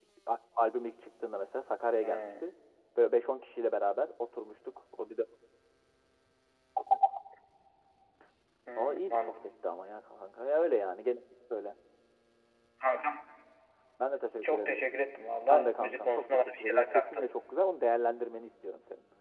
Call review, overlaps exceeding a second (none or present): present